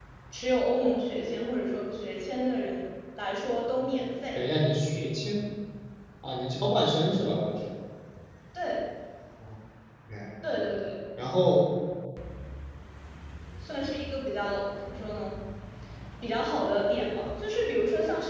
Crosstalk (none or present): none